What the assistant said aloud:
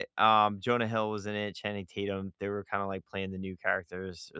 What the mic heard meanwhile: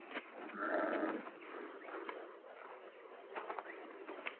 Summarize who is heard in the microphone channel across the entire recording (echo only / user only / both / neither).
neither